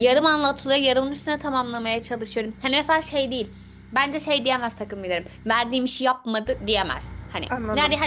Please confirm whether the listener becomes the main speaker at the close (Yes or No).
No